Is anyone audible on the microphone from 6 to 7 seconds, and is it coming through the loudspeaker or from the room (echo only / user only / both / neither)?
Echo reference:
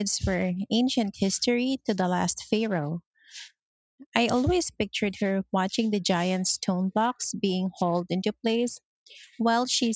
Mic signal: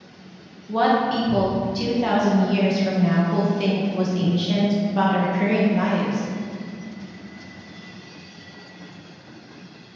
user only